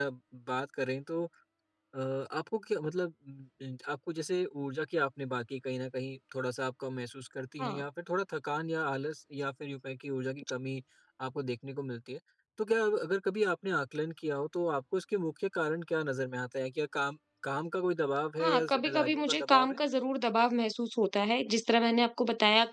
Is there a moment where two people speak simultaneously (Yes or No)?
Yes